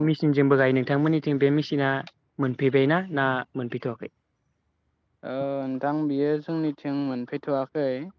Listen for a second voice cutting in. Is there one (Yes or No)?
No